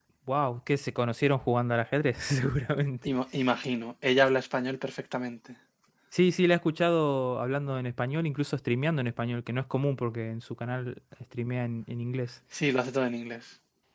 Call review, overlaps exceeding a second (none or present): none